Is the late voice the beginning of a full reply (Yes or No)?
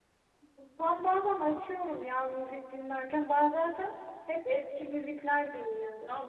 Yes